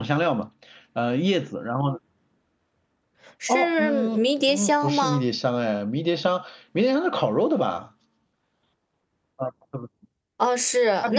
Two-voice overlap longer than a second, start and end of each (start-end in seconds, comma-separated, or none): 3.5-5.2